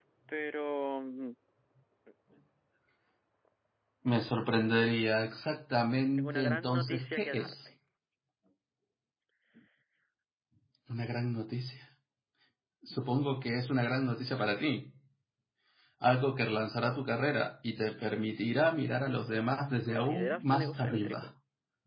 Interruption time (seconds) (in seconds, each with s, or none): 6.2 s